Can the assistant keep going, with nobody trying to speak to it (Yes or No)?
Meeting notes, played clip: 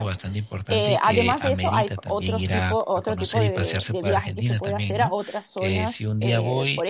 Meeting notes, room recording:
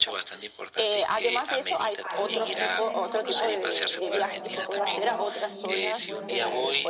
No